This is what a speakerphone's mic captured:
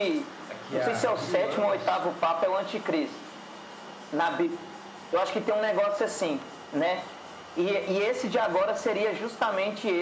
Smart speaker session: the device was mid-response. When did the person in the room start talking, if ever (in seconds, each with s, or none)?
0.5 s